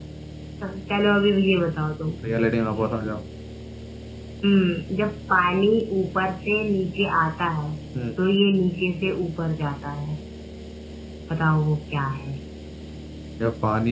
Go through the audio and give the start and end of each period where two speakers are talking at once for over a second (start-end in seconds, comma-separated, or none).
none